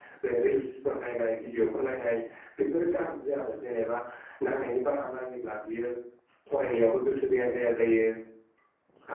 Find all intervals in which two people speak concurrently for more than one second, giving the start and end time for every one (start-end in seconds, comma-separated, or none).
none